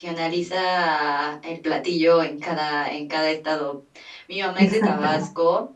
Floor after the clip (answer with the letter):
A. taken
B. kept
B